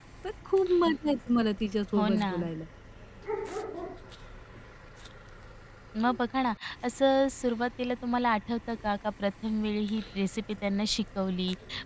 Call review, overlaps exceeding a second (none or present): none